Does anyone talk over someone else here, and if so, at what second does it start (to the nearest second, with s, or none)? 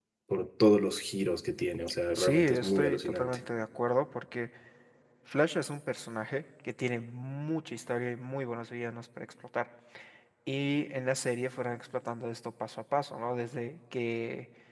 2 s